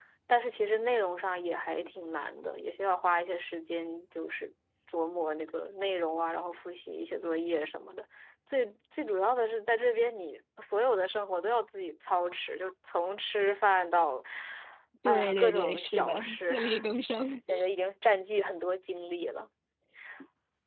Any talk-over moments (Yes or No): Yes